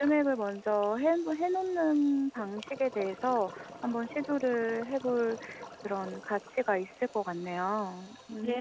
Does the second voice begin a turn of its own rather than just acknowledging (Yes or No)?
Yes